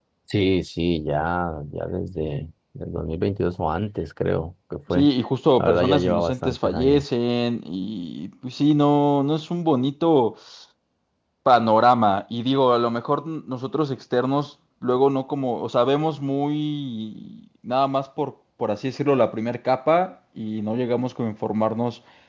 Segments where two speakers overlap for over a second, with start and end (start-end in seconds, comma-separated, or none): 5.6-7.1